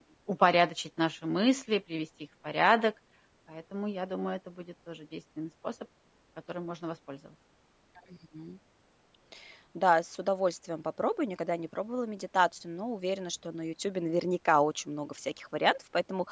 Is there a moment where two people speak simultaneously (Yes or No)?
No